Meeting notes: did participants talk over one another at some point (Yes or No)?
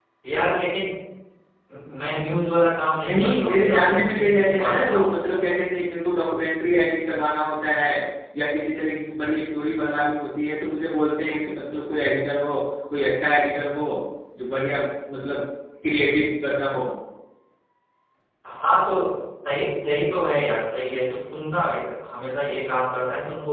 Yes